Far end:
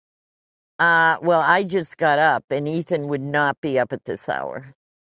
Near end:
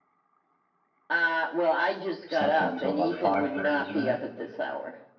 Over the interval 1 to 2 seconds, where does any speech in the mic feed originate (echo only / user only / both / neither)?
echo only